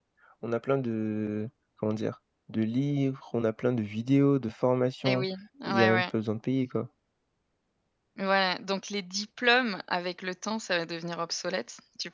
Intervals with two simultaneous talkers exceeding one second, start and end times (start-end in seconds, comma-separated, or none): none